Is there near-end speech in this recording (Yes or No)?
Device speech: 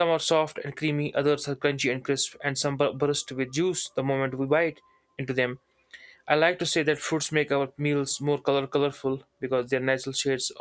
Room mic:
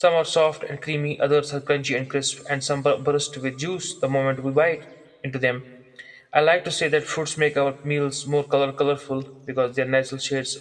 No